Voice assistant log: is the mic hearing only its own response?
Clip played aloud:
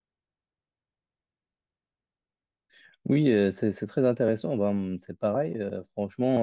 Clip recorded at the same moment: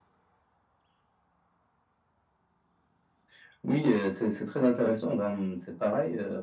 Yes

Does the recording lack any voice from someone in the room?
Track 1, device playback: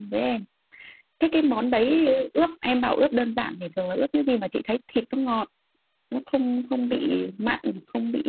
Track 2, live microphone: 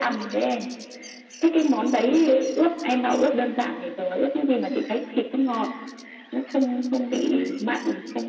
Yes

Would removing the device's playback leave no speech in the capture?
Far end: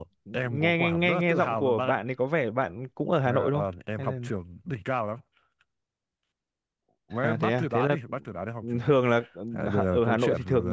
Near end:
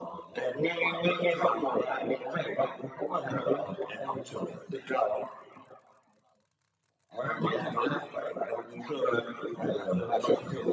Yes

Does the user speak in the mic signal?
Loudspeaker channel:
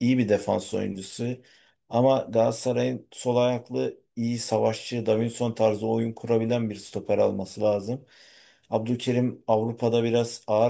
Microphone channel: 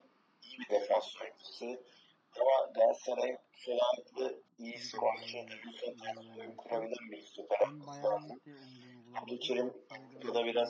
Yes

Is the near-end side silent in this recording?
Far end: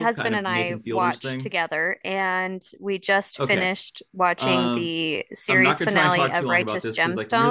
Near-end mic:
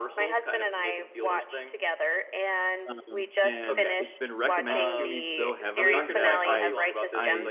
No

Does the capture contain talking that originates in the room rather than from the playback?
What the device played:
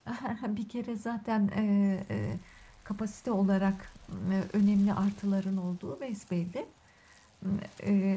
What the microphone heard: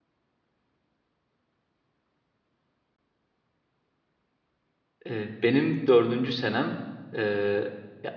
Yes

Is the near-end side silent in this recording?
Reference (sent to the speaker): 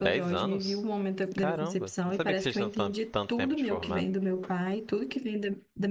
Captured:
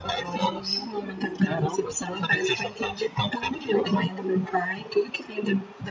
Yes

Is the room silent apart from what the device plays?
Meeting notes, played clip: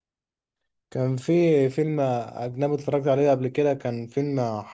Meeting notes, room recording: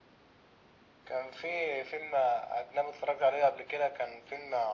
Yes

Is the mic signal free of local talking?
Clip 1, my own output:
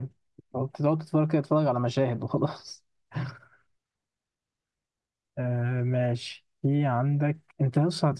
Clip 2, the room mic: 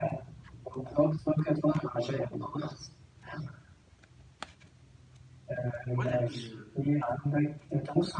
No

